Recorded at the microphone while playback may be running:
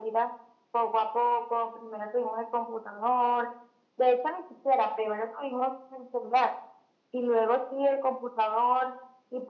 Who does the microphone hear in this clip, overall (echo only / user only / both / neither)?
echo only